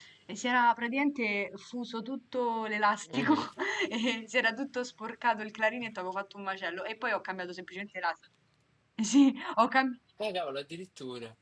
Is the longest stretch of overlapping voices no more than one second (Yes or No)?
Yes